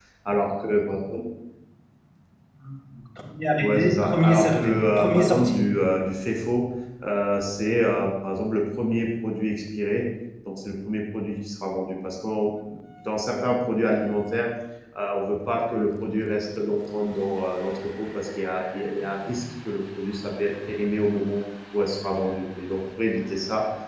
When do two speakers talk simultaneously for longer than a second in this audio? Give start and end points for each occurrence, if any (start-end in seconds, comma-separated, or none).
3.6-5.6